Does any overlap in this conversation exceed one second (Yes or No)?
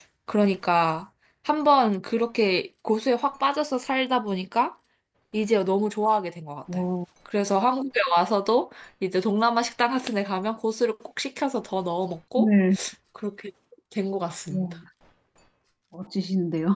No